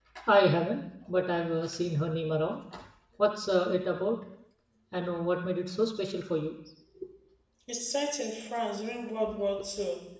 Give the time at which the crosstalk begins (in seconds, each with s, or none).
none